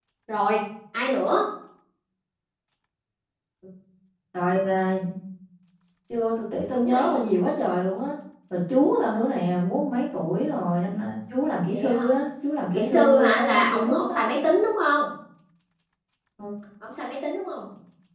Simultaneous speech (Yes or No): Yes